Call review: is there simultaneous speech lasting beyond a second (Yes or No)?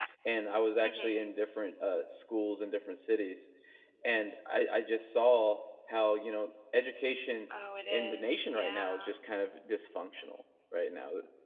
Yes